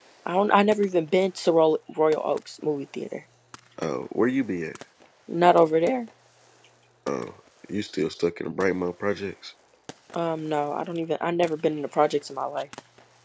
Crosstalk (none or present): none